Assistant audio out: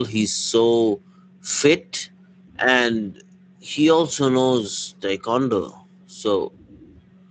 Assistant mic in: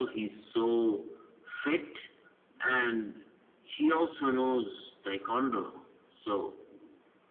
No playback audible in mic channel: No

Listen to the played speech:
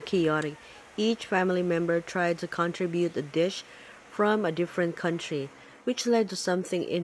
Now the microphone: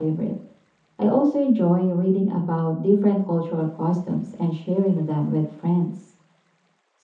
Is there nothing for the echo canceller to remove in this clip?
Yes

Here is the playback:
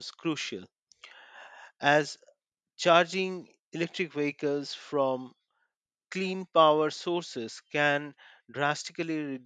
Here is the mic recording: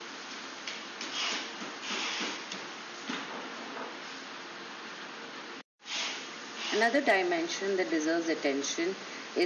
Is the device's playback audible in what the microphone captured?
No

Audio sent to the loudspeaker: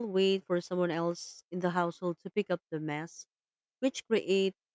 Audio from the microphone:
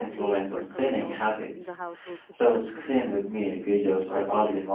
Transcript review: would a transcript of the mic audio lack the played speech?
No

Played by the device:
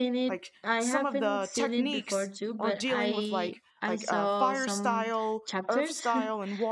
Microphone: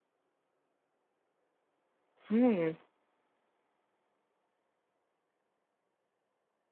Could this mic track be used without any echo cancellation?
Yes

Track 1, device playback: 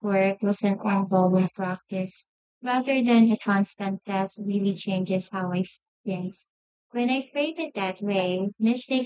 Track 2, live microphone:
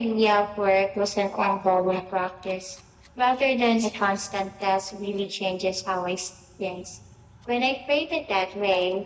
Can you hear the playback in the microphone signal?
Yes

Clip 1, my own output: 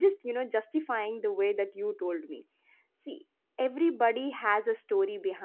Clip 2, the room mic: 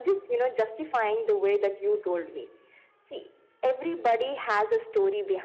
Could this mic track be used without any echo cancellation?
No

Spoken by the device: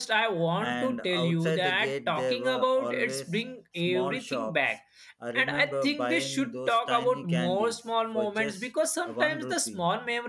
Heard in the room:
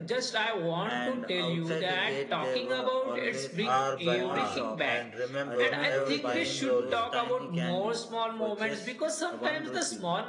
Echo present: Yes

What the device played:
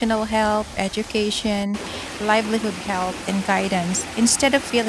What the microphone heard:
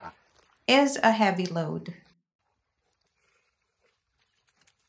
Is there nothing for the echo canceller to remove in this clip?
Yes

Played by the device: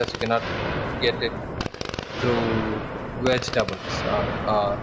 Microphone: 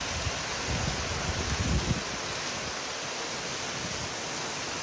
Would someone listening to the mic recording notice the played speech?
No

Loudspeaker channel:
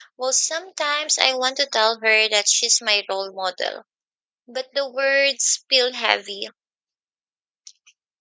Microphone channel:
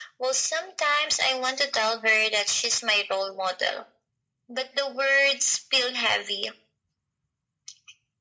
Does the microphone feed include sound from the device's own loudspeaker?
Yes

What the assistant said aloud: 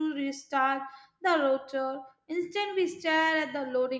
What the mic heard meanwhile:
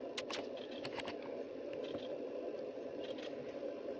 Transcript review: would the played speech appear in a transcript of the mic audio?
No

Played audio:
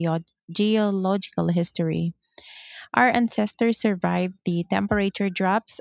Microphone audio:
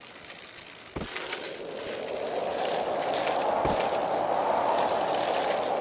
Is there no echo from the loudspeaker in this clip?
Yes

